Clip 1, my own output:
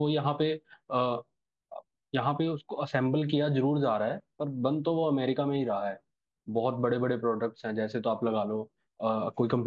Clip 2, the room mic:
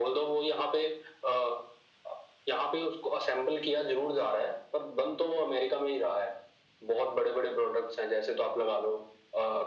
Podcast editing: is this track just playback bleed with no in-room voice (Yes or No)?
Yes